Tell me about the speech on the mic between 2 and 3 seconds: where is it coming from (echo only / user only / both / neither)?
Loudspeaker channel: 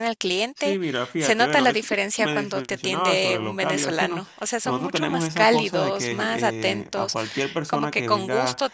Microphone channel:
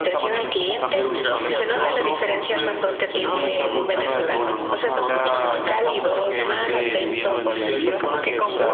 both